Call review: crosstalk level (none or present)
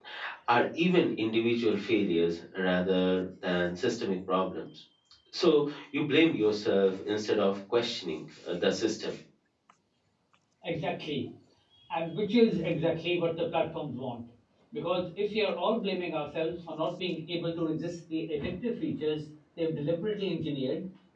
none